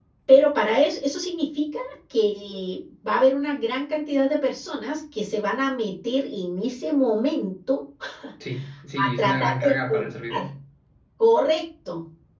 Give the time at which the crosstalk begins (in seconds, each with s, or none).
9.0 s